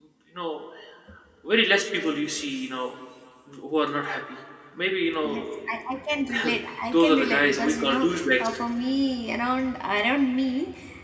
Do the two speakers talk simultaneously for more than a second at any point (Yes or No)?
Yes